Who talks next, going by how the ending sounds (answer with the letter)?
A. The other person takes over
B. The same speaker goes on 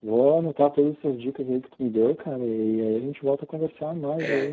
A